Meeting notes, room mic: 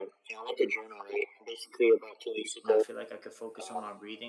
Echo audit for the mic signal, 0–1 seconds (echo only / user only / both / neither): echo only